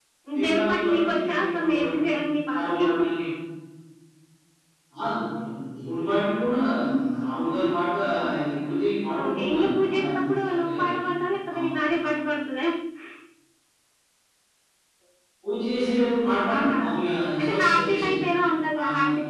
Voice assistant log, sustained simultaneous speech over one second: present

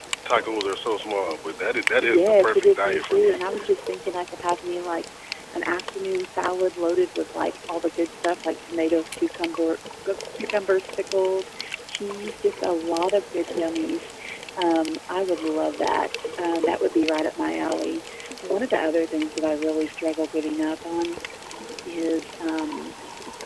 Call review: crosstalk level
present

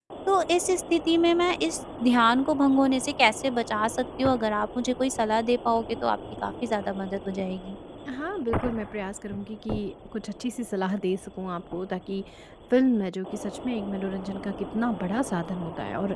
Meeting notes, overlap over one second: none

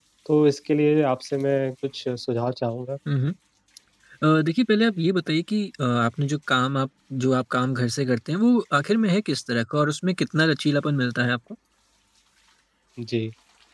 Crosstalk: none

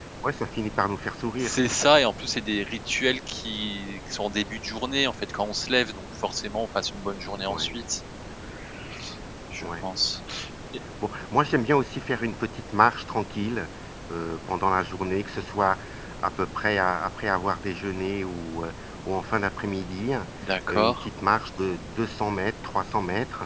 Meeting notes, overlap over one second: none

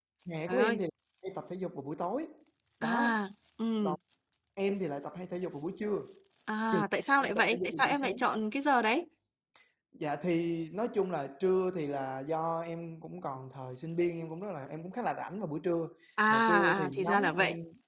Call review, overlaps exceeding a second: present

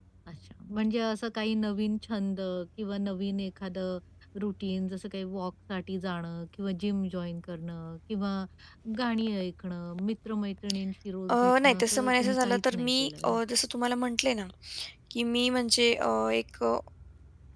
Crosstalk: present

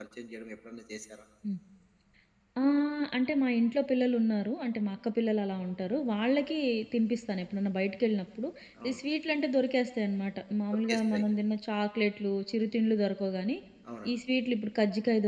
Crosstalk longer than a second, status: none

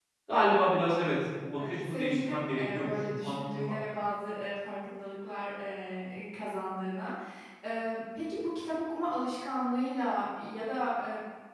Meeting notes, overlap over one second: present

